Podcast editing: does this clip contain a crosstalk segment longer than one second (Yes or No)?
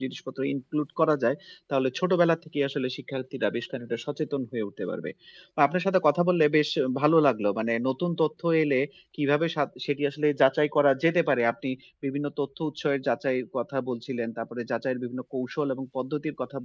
No